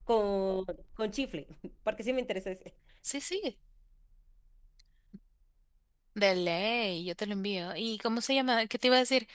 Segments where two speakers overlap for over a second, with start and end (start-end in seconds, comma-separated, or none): none